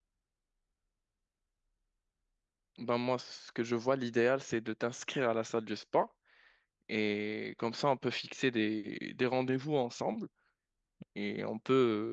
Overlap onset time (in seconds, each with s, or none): none